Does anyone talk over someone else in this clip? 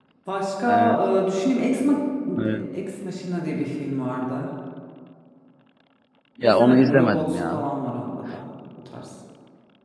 Yes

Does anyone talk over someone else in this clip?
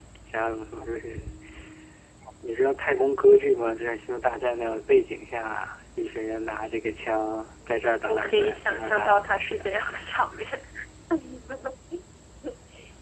Yes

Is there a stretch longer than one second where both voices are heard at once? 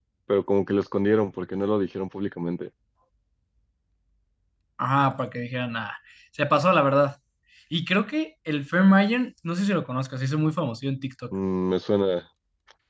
No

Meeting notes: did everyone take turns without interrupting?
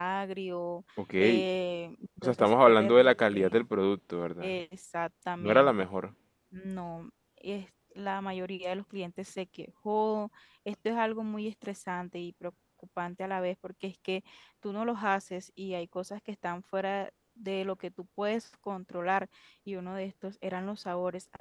No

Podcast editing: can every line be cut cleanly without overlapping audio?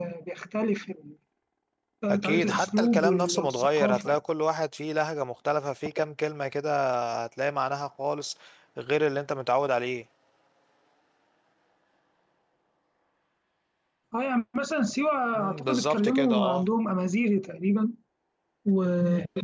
No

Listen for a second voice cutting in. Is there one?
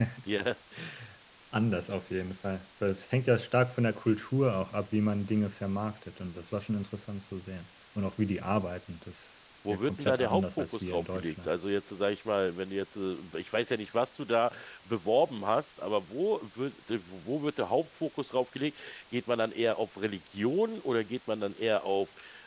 Yes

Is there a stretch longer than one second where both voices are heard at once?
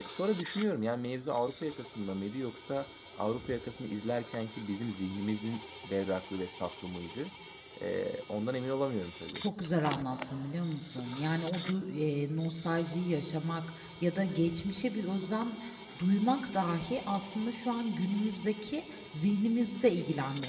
No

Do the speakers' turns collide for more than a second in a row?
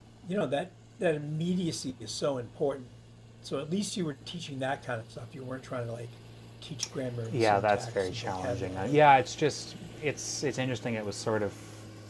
Yes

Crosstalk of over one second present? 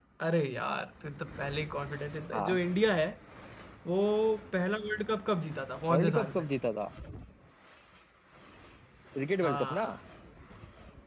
No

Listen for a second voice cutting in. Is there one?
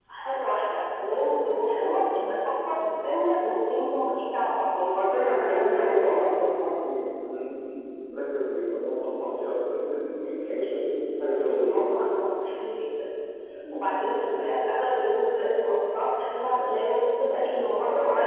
Yes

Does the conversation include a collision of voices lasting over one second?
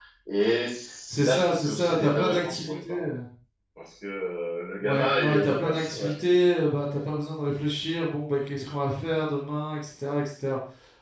Yes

